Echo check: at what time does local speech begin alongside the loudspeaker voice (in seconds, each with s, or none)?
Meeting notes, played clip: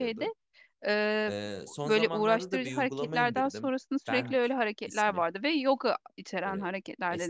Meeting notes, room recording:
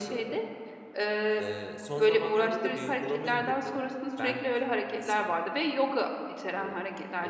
none